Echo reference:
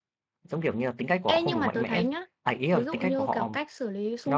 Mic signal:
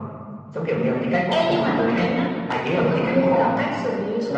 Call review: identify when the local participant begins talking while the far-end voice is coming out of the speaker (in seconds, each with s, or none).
none